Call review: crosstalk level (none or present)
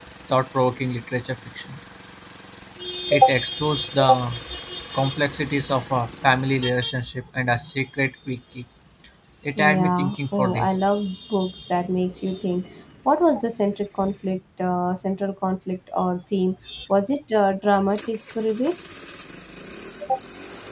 present